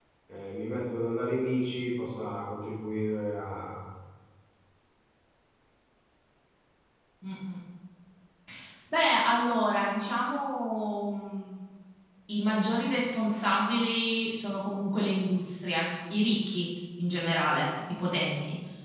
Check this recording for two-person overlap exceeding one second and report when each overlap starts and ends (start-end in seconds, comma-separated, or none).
none